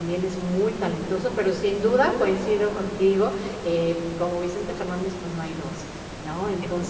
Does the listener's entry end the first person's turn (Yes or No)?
No